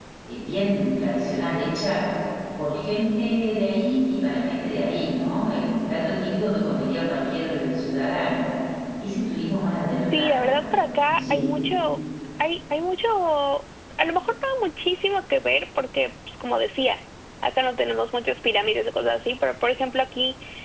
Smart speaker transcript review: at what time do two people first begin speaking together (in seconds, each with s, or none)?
10.1 s